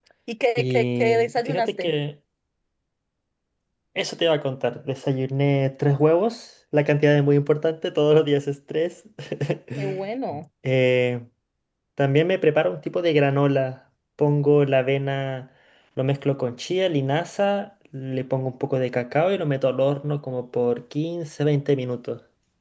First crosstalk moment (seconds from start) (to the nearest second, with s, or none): 1 s